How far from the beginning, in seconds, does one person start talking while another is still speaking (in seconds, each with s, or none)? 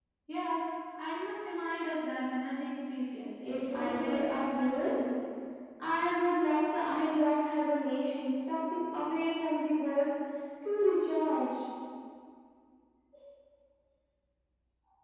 3.4 s